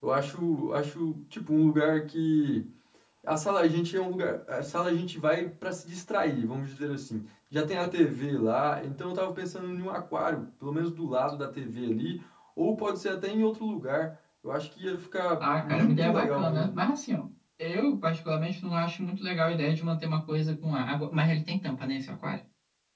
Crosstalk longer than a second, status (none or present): present